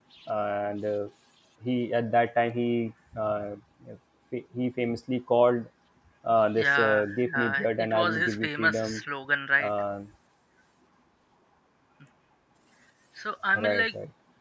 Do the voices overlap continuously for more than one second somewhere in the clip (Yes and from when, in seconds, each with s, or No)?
Yes, from 6.6 s